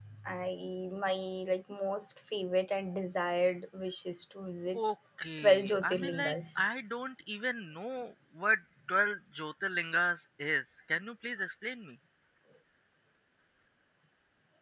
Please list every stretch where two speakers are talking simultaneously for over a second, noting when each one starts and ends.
5.4-6.6

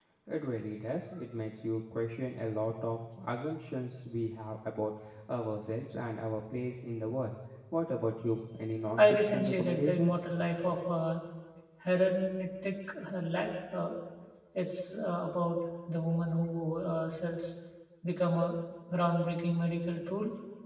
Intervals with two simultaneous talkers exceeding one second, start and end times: 9.0-10.2

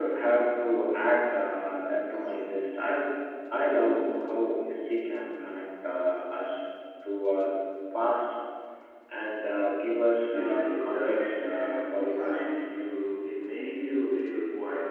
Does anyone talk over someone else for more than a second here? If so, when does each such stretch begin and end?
10.3-12.6

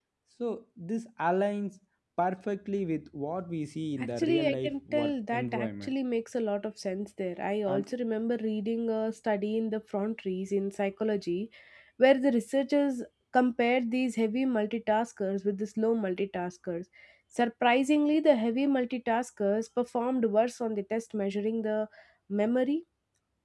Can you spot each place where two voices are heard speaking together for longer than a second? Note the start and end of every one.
4.2-5.9

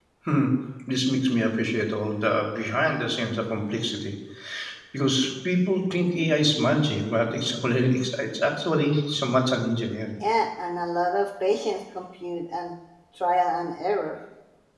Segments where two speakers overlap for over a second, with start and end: none

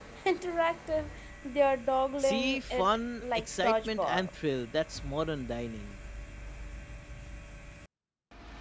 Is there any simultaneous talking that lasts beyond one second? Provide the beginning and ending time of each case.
2.2-4.3

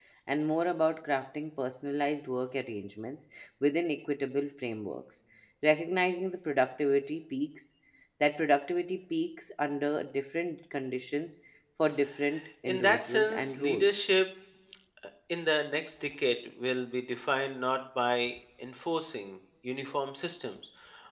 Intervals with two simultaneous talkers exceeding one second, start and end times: 12.6-13.9

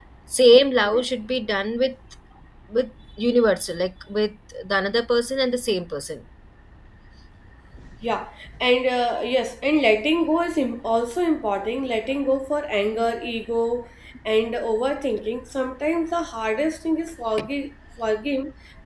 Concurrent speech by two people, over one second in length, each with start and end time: none

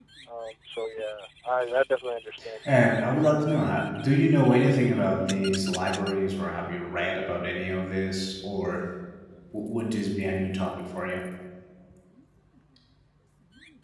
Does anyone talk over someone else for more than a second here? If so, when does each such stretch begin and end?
none

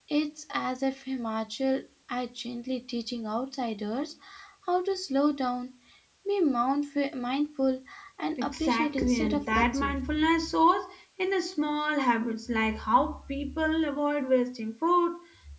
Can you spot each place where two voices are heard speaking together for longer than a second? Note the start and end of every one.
8.4-9.9

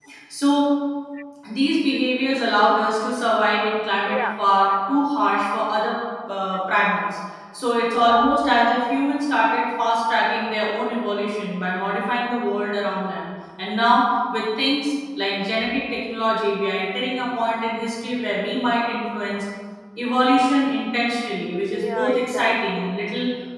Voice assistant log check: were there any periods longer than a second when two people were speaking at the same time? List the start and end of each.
21.7-23.0

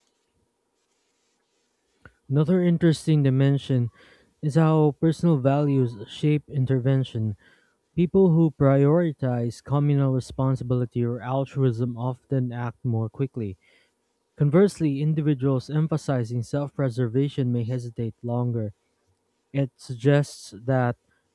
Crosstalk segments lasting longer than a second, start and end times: none

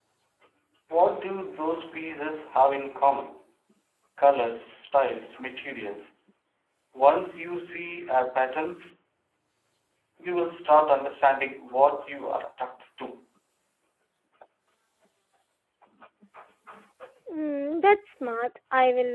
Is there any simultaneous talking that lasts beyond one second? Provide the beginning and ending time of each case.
none

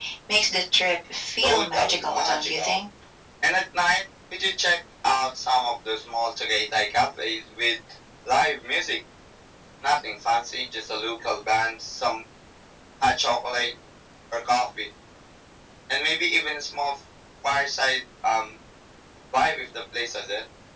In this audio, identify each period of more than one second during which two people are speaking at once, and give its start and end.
1.4-2.8

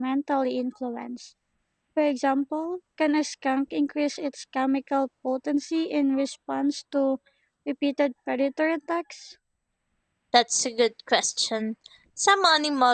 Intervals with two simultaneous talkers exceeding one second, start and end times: none

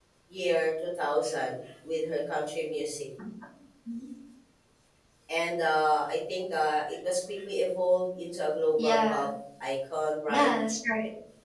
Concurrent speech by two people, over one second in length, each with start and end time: none

